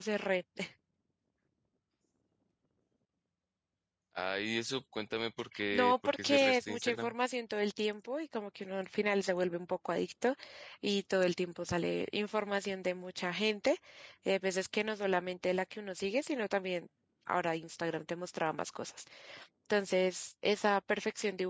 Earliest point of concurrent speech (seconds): 5.7 s

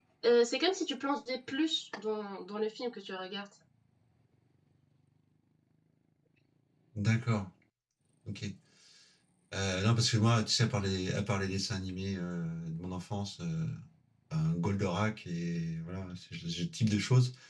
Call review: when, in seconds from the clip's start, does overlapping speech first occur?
none

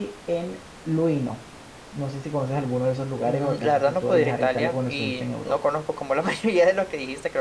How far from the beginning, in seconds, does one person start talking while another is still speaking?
3.2 s

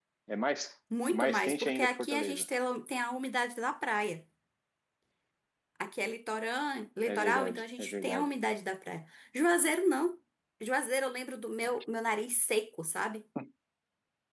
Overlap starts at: 1.1 s

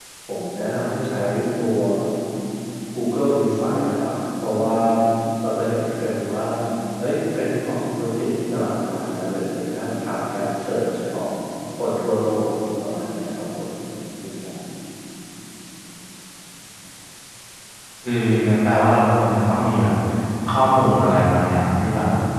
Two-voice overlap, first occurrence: none

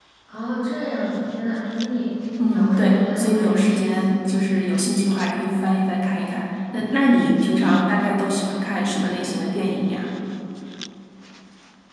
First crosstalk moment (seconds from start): 2.4 s

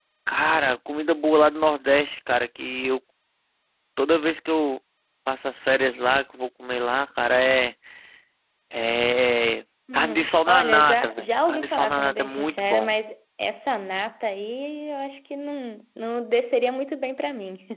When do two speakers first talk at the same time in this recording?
9.9 s

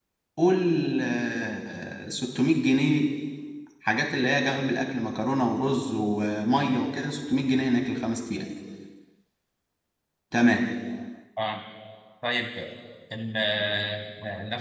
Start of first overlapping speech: none

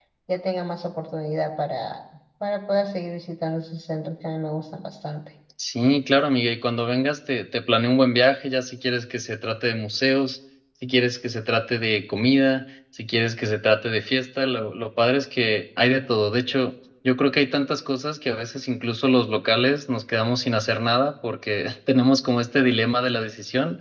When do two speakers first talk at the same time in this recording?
none

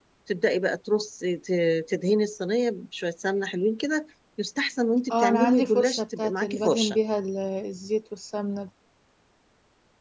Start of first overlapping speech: 5.1 s

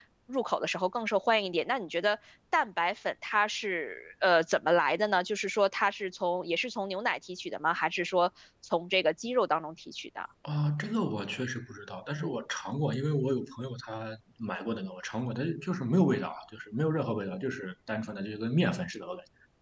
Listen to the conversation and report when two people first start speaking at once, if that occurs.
none

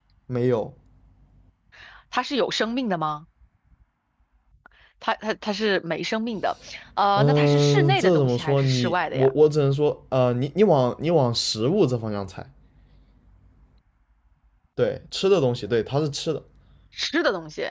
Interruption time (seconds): 7.2 s

